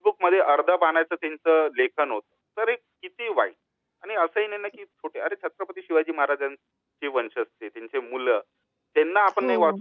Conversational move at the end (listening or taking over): listening